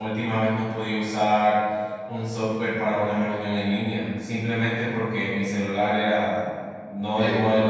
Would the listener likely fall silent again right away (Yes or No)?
Yes